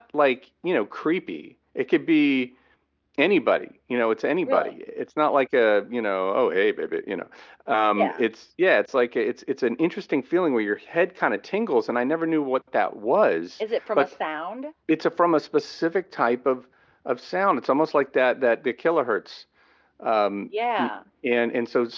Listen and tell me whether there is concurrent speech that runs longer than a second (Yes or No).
No